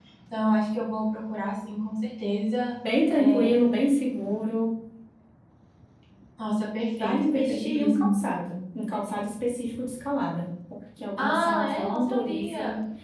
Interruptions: present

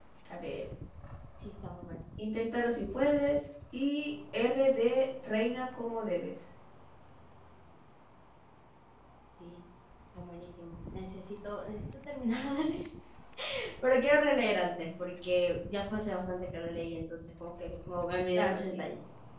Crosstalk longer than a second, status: none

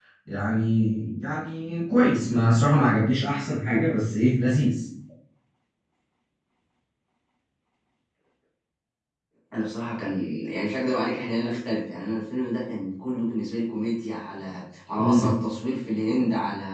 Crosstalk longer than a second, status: none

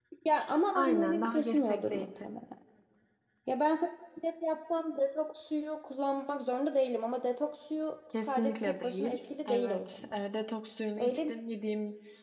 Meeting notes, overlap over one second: present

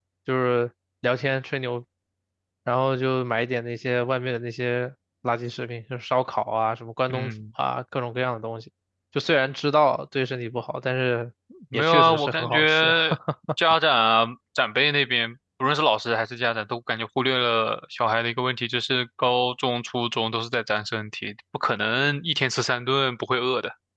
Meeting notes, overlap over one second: present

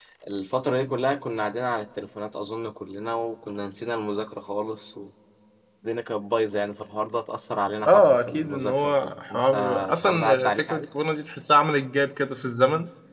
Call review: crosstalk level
present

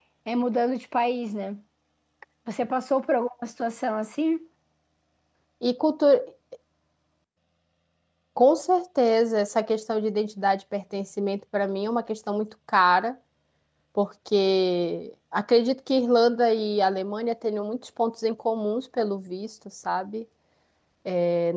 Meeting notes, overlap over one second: none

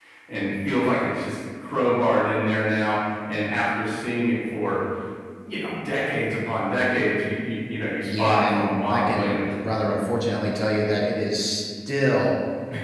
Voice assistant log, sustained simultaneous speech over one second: present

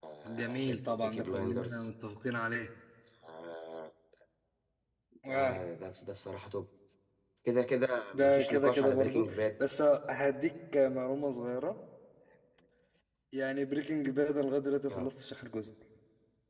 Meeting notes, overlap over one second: present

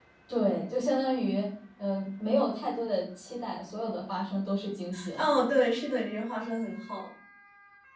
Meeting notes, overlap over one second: none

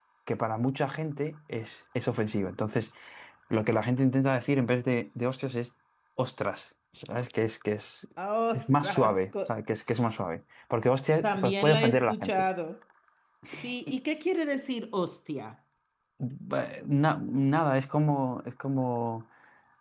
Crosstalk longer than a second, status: present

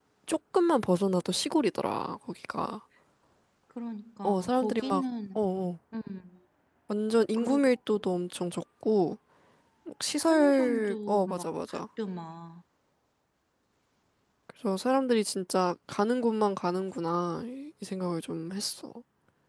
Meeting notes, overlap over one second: present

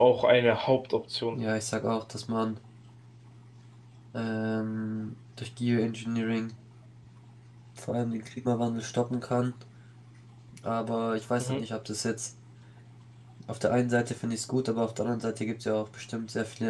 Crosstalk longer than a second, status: none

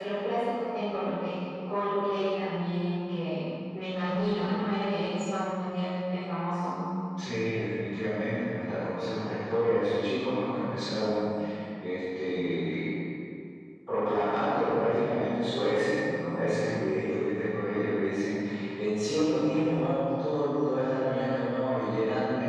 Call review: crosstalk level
none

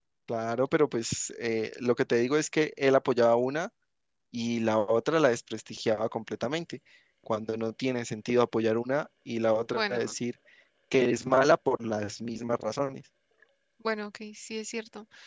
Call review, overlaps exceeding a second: none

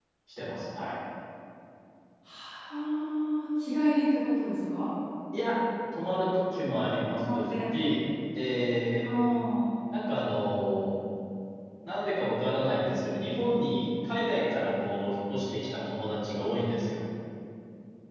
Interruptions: none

